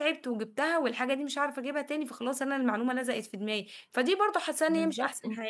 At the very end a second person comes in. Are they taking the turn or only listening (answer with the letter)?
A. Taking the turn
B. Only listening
B